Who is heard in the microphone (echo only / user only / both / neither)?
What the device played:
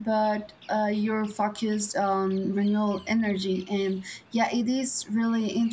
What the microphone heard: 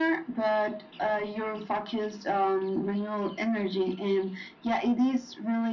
echo only